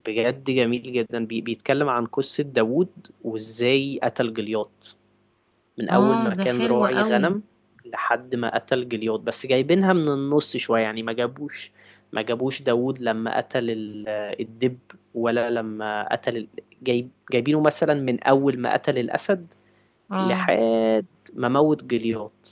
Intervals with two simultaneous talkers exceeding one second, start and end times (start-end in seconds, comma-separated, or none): 5.9-7.2